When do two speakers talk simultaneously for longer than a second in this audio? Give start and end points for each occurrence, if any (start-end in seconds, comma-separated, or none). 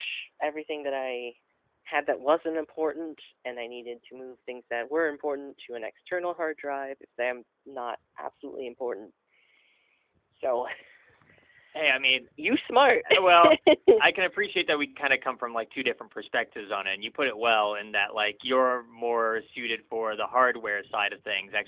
none